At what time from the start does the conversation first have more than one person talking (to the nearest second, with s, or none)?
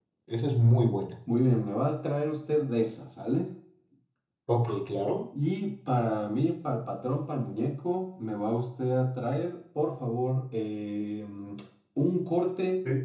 none